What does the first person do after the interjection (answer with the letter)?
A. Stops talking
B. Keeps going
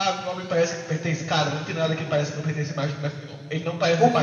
A